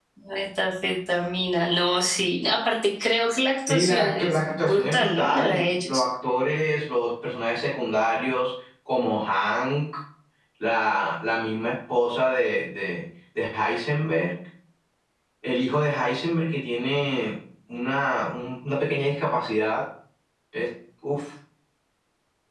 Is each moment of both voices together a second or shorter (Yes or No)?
No